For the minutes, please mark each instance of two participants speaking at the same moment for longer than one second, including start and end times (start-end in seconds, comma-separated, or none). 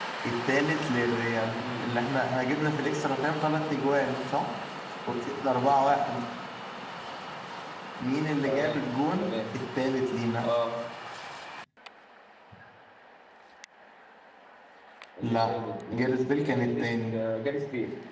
15.2-17.1